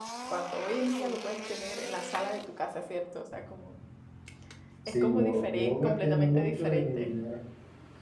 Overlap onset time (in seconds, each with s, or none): 4.9 s